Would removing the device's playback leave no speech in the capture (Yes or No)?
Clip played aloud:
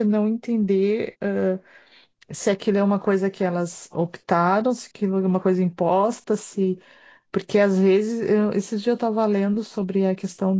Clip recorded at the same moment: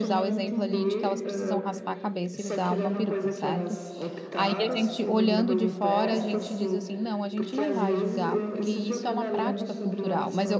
No